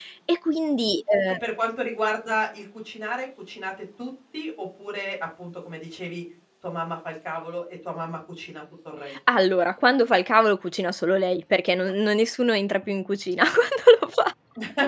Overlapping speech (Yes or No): No